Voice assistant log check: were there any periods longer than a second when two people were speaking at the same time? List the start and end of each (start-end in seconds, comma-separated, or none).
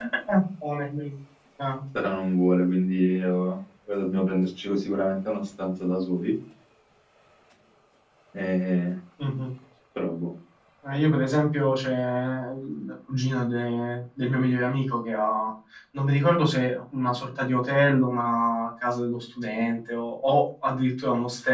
none